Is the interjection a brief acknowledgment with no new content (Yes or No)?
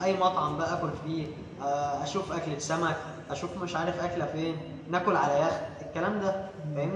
No